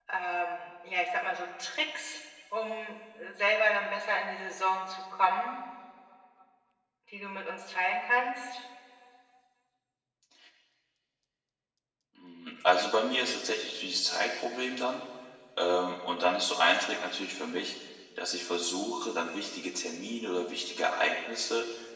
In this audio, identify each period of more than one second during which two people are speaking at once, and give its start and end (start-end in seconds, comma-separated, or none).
none